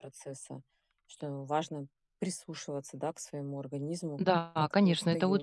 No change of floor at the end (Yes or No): No